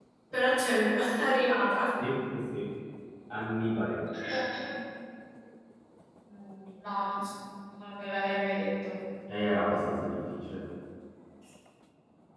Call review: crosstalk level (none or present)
none